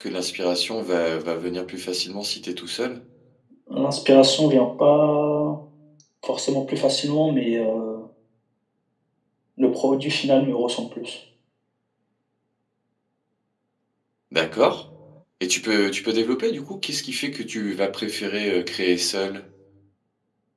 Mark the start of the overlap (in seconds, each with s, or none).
none